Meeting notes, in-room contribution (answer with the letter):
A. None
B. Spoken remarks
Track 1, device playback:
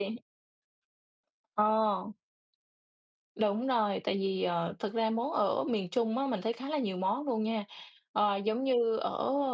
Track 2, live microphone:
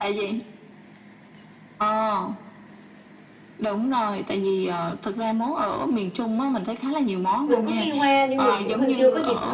B